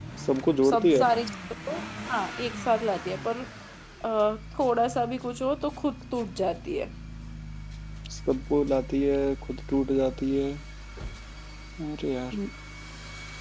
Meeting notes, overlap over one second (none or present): none